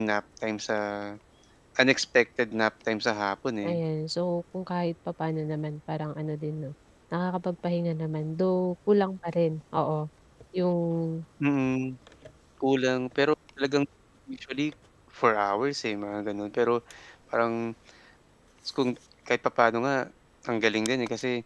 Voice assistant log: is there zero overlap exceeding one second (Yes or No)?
Yes